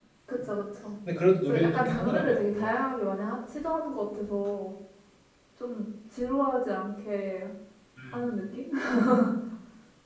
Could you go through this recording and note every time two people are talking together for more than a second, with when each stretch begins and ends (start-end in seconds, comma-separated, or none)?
1.5-2.7